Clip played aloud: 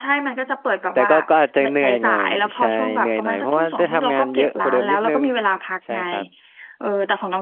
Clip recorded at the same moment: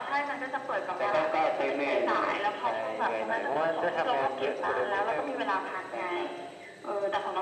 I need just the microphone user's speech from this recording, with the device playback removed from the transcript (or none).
none